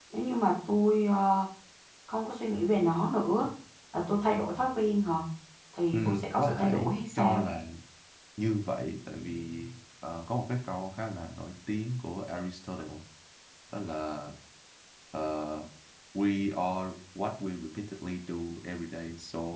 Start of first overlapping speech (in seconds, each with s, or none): 5.9 s